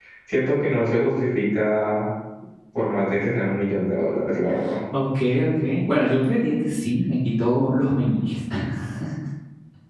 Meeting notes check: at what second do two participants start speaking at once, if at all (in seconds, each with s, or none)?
none